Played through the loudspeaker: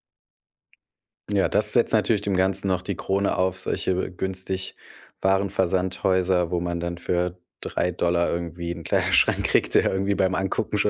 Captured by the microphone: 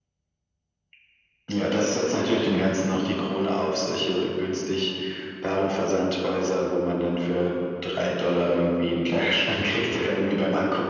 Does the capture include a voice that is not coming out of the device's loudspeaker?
No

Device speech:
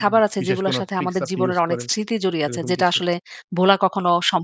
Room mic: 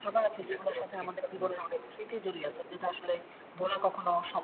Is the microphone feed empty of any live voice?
Yes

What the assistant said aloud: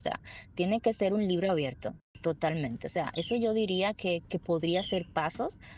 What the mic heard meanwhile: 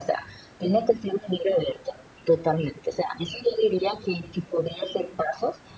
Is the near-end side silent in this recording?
Yes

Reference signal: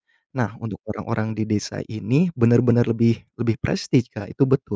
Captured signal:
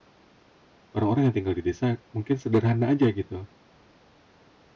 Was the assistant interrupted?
Yes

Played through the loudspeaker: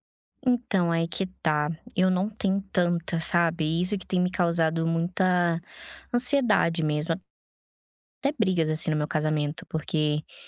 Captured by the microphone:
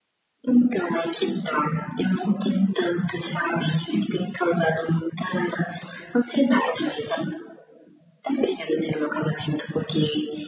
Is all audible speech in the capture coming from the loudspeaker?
Yes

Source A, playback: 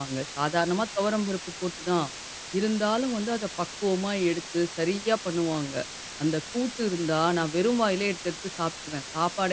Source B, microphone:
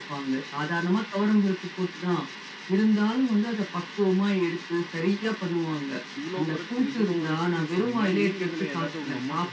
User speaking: Yes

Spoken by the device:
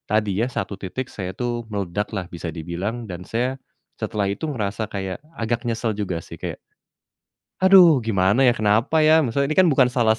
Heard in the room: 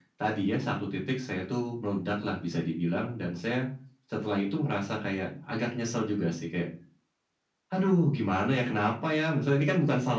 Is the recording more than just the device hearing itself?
No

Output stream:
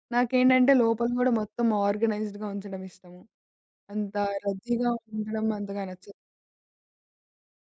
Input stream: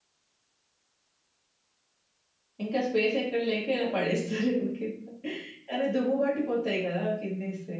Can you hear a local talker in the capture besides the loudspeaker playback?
Yes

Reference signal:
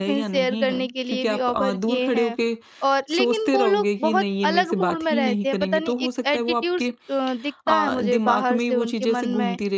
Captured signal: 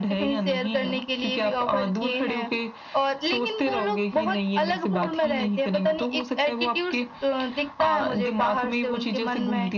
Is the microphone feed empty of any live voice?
Yes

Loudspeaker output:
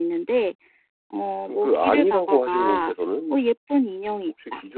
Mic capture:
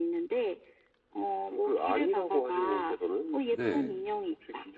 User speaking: Yes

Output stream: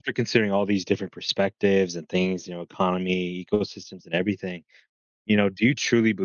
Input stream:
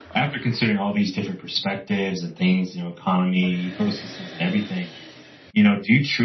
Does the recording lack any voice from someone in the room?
Yes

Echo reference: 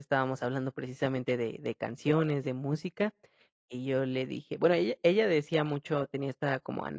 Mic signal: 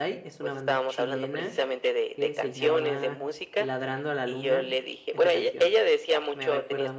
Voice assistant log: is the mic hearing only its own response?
No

